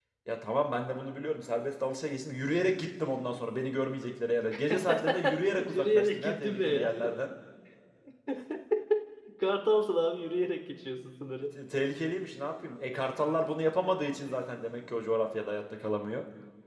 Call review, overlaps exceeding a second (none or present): present